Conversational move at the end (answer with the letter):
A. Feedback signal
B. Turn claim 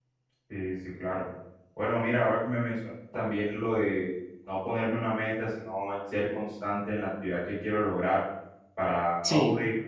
A